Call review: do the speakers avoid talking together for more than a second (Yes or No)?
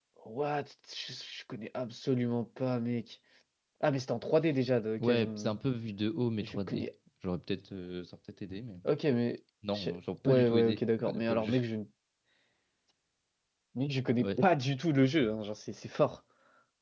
No